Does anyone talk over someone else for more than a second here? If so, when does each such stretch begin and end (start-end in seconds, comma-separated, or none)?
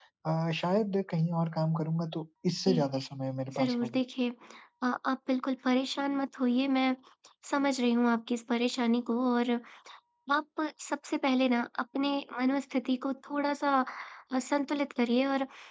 none